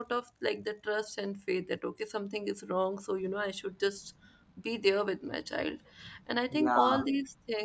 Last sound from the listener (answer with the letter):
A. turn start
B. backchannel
B